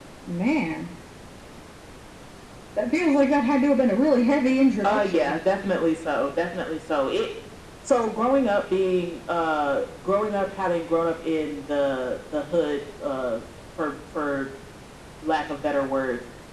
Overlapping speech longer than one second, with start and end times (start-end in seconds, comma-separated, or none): none